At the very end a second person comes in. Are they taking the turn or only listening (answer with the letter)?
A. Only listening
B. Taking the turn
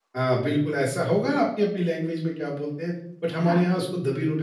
A